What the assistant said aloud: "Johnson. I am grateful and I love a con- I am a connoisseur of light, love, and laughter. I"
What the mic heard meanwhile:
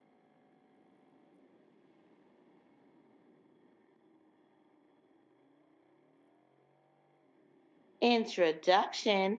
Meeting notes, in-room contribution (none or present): present